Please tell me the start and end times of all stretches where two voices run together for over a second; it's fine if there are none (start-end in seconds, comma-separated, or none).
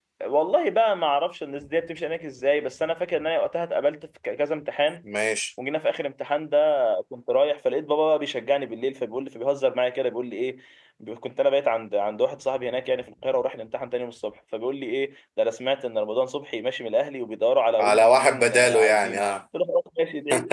17.8-19.3